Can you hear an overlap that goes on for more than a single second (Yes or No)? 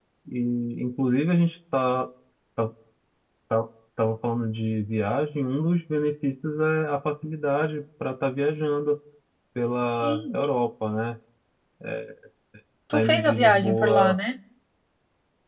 Yes